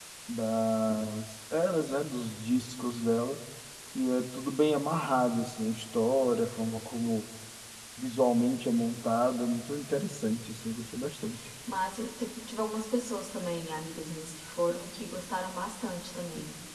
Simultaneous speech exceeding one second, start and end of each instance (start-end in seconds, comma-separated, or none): none